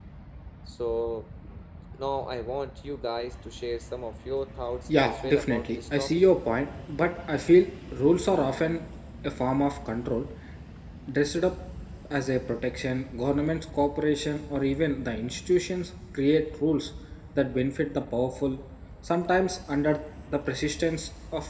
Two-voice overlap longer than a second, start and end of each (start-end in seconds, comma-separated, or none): 5.0-6.2